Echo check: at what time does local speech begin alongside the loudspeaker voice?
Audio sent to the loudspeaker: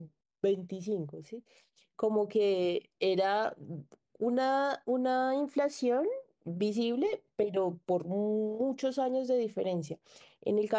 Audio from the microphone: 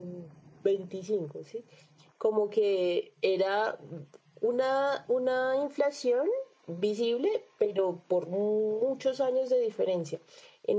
none

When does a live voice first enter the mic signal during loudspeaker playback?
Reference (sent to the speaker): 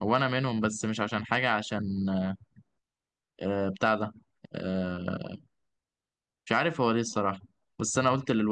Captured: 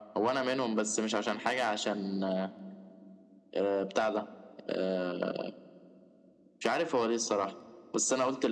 none

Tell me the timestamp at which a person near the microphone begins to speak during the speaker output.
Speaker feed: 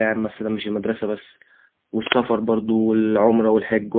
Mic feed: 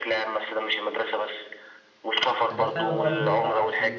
2 s

